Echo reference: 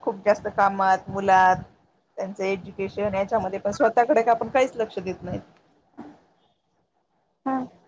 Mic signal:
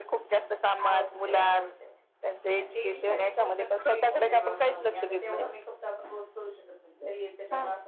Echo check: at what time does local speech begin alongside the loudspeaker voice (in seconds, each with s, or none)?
0.8 s